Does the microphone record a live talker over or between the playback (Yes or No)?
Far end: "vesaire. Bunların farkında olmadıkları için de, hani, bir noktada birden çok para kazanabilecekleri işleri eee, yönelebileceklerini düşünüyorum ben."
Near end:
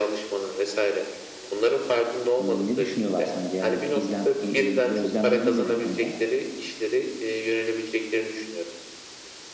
Yes